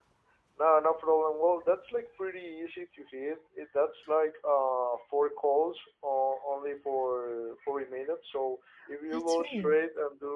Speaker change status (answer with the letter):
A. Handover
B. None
B